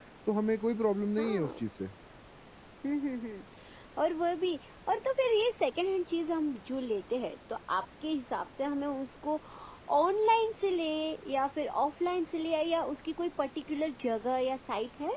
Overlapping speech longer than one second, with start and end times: none

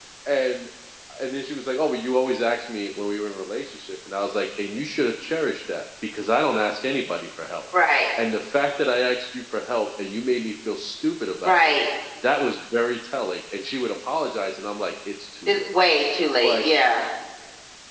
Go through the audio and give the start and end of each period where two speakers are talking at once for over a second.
none

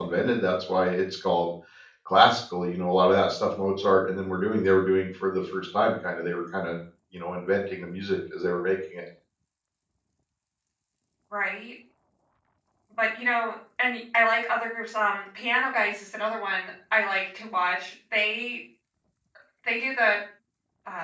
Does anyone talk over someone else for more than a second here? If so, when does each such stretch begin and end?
none

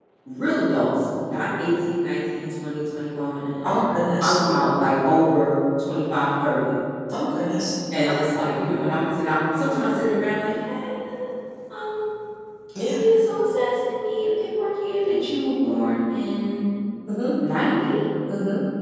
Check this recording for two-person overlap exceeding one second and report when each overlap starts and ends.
none

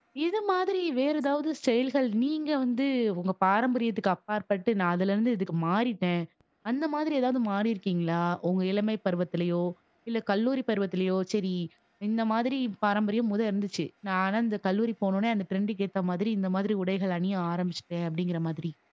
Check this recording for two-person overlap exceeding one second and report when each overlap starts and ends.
none

